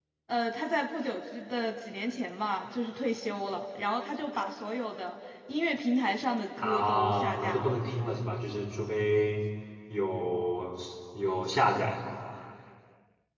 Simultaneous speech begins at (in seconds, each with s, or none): 6.6 s